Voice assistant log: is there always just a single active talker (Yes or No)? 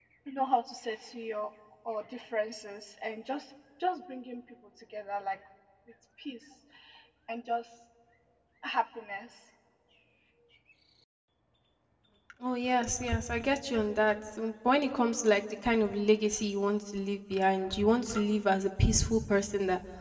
Yes